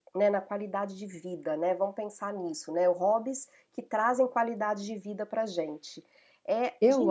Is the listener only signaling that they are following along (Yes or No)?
No